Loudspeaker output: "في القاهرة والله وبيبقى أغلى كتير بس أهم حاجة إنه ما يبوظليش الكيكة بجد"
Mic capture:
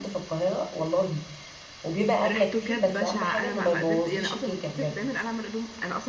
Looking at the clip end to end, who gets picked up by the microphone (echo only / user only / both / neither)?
both